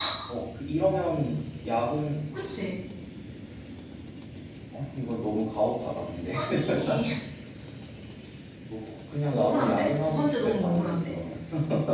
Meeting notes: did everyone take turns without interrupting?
No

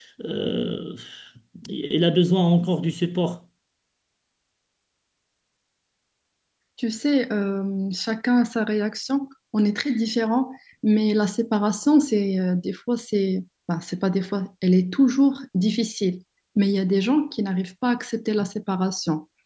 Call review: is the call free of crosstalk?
Yes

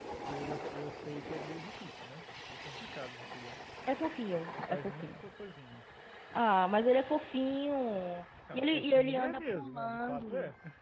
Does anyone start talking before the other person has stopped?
Yes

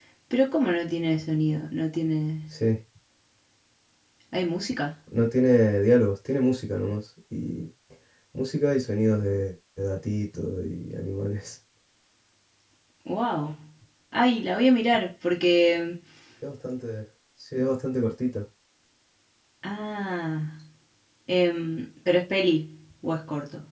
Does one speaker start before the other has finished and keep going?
No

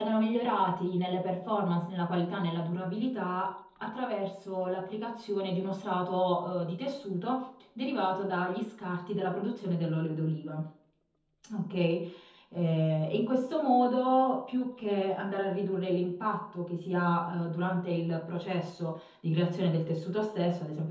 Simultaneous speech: No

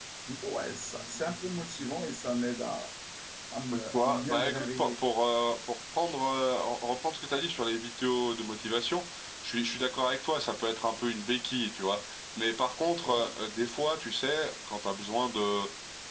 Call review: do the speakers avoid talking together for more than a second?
No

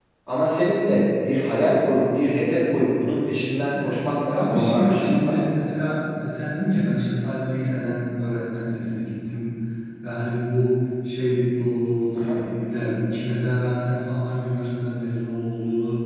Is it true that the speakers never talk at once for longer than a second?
No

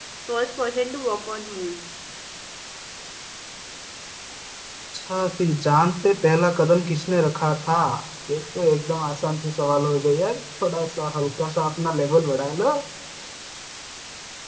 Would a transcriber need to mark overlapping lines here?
No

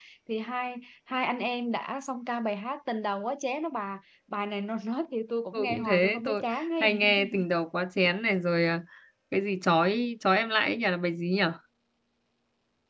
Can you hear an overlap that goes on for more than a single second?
Yes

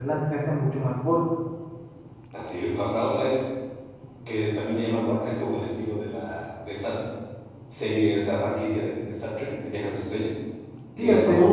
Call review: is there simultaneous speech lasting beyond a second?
No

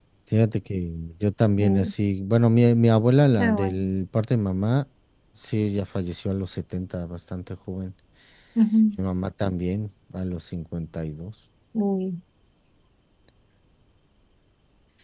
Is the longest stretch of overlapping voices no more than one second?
Yes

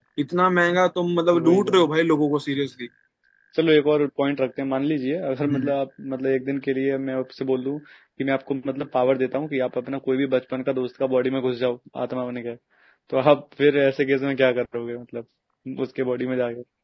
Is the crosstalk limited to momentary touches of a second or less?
Yes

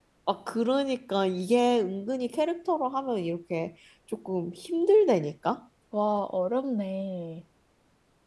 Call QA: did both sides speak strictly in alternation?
Yes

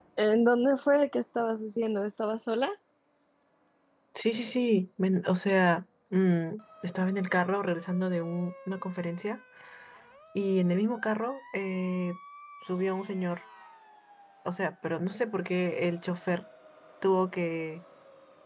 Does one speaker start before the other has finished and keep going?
No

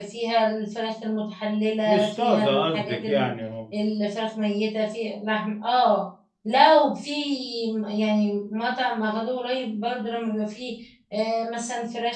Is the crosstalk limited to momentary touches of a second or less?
No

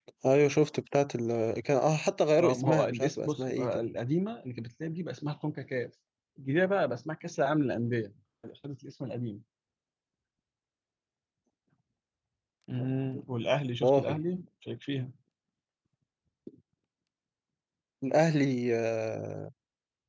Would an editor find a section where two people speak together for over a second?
Yes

